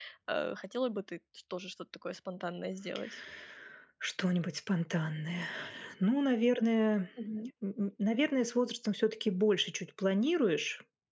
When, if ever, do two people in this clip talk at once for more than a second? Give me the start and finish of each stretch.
none

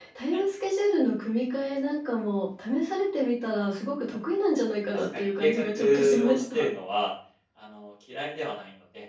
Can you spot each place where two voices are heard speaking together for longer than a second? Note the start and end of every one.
4.9-6.6

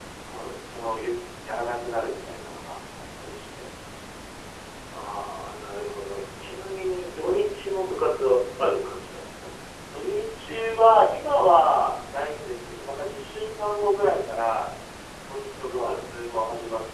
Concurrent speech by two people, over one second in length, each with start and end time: none

